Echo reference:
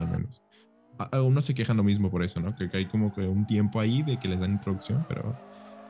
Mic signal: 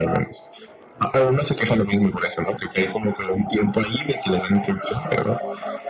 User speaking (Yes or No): No